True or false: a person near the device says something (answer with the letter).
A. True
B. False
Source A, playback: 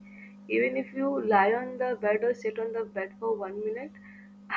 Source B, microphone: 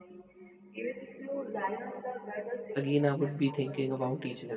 A